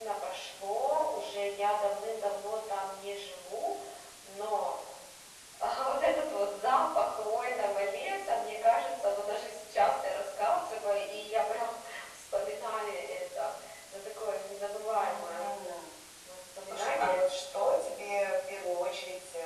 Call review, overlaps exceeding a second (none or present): none